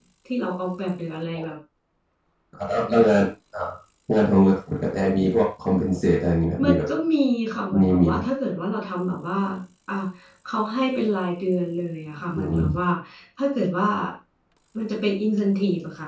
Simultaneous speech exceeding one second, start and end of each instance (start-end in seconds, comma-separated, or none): none